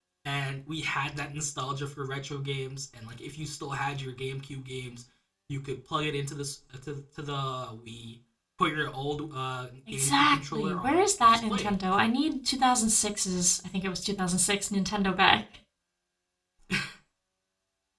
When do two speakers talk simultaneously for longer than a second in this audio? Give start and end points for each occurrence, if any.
9.9-11.7

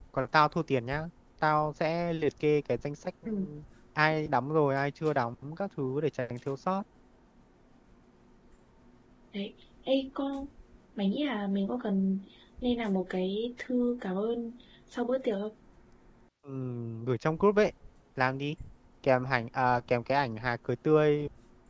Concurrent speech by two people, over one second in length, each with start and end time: none

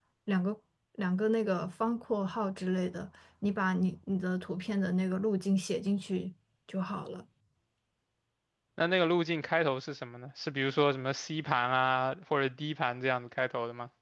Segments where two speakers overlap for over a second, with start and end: none

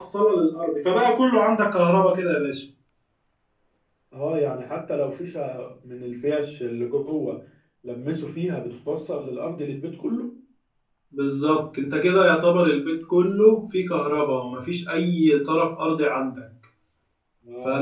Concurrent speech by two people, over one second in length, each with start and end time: none

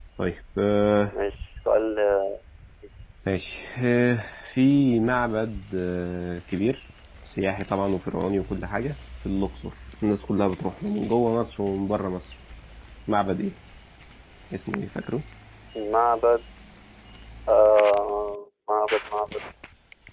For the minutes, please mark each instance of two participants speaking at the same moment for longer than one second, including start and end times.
none

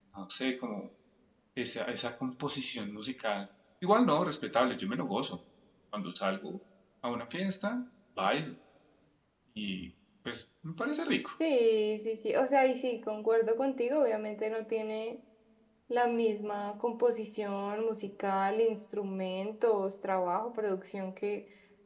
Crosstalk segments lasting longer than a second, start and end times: none

